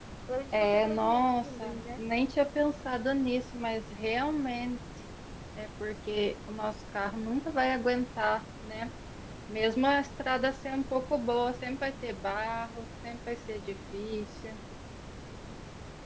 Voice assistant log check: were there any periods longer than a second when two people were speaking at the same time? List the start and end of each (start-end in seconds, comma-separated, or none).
0.5-2.0